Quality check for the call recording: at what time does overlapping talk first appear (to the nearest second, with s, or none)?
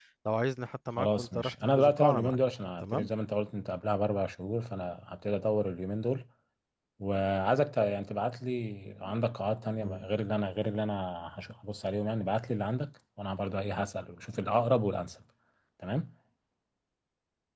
1 s